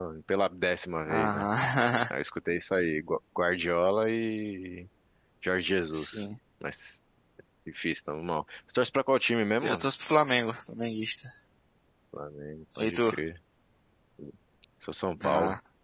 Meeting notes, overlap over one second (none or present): none